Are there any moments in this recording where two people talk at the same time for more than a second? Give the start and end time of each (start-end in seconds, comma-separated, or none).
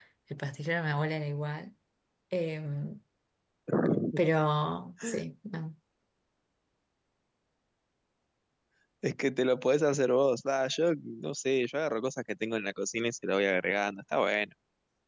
none